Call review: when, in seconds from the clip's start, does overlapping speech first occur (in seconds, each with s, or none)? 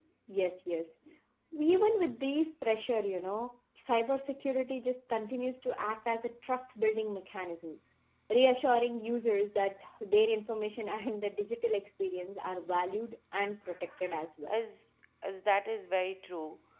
none